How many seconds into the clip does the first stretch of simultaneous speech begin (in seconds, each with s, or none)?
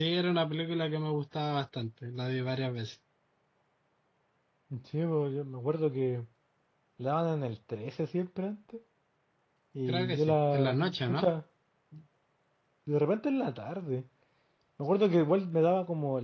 9.9 s